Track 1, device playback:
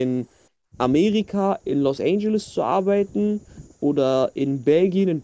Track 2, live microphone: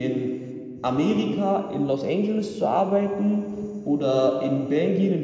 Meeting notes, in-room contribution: none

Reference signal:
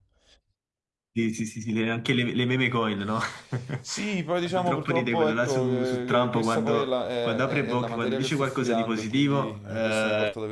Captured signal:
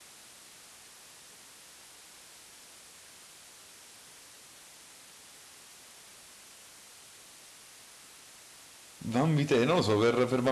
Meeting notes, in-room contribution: present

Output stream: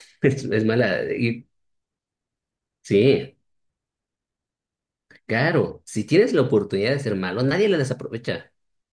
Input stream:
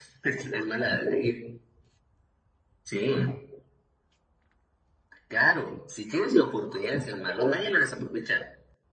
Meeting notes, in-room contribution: none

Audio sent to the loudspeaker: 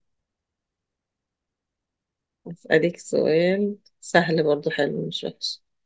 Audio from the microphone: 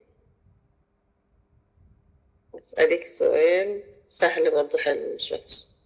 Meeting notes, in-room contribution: none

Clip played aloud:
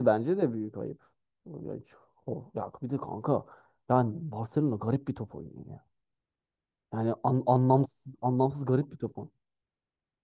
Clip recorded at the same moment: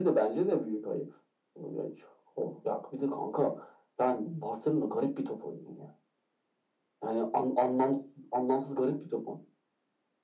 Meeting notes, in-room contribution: none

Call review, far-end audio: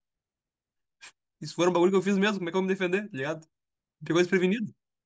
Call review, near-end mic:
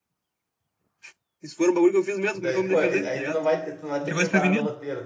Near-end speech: present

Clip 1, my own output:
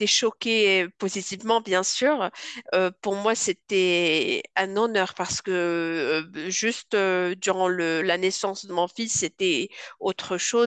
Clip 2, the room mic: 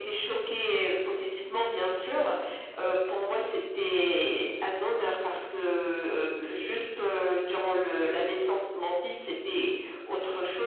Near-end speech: none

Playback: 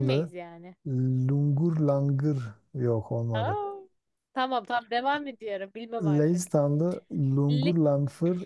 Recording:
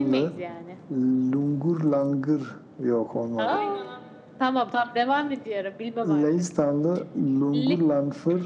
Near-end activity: present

